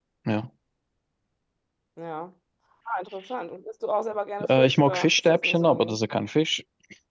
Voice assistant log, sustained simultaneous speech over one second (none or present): present